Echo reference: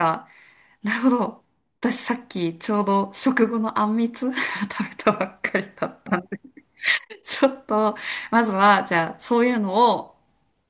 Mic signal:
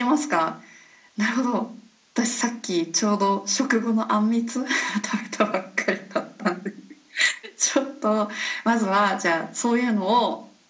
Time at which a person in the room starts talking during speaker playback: none

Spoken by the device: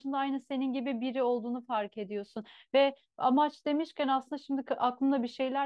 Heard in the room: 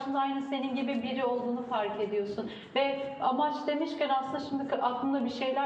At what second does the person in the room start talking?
none

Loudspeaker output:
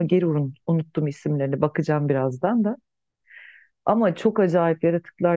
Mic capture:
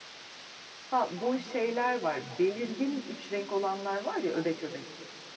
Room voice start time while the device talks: 0.9 s

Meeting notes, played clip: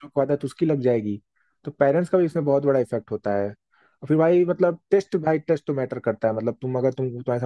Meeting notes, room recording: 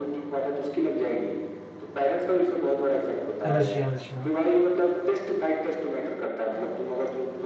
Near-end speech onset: 3.5 s

